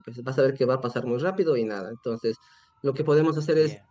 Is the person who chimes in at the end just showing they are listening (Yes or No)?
Yes